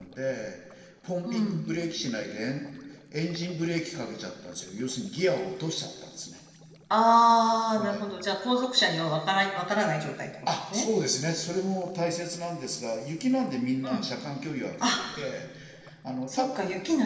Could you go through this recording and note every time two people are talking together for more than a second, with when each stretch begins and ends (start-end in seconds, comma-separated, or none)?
none